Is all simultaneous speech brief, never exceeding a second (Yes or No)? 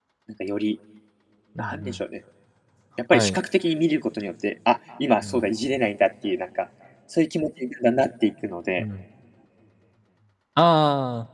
Yes